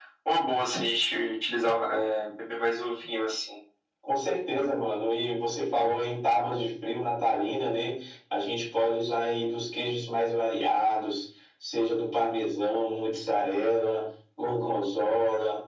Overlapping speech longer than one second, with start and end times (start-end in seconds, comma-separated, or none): none